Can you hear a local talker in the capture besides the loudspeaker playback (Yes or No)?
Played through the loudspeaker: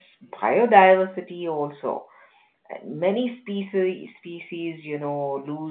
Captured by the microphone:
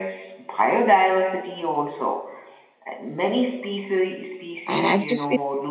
Yes